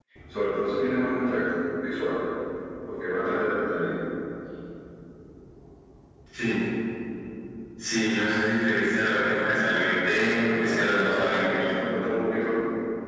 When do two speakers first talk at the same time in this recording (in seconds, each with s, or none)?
10.0 s